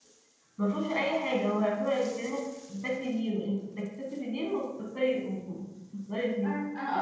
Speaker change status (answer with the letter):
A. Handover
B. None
A